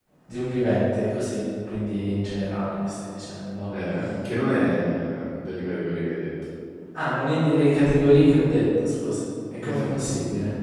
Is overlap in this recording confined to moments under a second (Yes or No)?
Yes